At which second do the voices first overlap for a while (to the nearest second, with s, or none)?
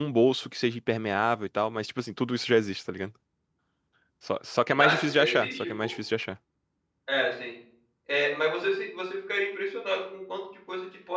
5 s